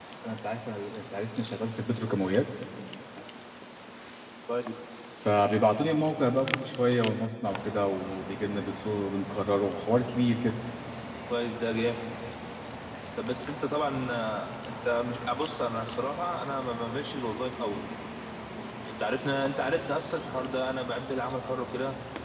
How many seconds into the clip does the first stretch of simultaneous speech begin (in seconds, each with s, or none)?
none